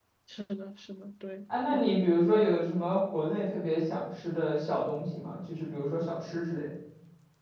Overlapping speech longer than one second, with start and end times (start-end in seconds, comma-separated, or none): none